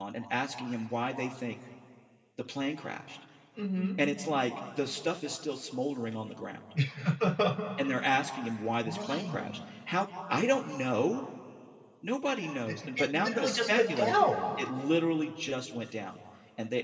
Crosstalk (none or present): present